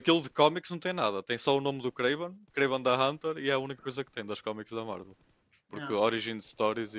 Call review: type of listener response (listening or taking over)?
listening